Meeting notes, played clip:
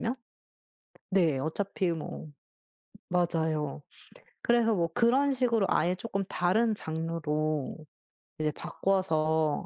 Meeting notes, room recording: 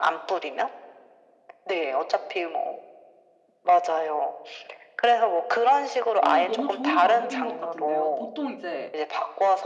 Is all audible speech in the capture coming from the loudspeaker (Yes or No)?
No